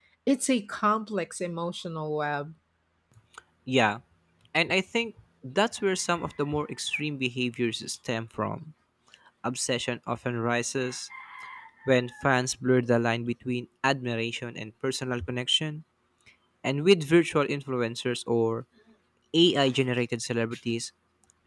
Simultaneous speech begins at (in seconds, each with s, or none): none